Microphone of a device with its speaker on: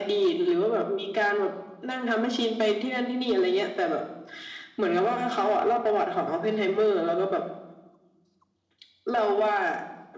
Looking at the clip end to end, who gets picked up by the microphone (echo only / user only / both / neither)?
echo only